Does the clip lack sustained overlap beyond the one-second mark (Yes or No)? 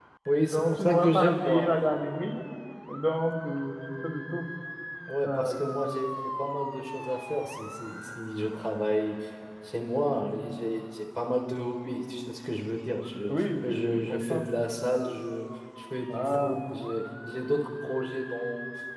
No